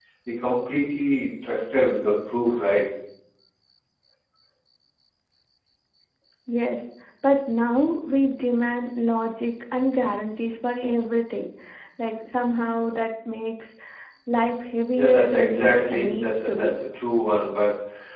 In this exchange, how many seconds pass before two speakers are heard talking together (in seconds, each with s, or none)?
14.9 s